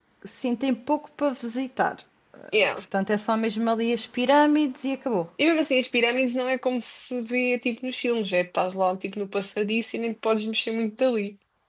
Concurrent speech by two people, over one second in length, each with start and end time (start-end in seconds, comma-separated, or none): none